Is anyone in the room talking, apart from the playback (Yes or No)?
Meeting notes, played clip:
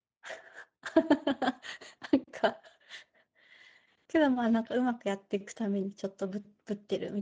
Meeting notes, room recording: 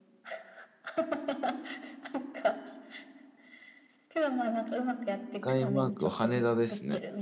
Yes